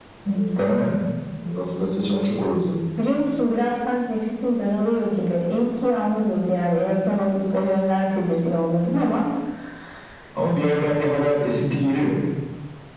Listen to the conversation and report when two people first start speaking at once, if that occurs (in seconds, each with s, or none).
none